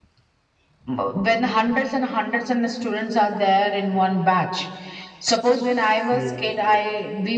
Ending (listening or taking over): listening